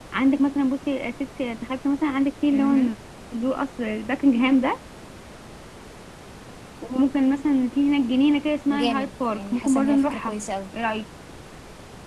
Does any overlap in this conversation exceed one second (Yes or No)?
Yes